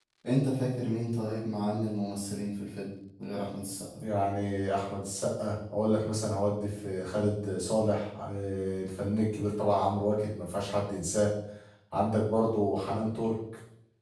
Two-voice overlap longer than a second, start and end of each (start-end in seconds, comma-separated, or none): none